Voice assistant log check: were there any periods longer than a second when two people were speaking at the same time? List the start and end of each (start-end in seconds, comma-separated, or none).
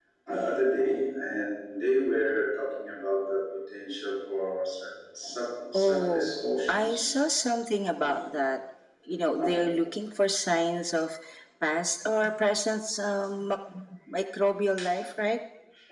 5.7-7.1